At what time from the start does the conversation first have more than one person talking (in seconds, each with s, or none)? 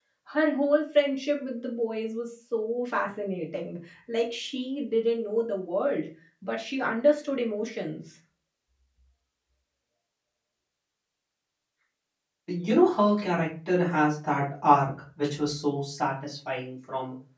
none